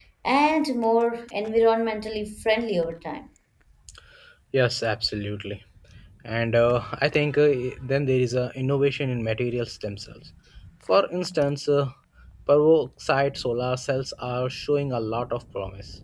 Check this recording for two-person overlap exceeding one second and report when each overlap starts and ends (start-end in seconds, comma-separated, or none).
none